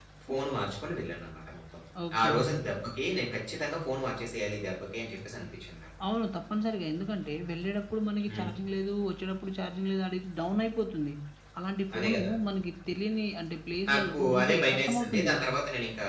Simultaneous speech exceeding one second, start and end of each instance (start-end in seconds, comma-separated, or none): 13.9-15.4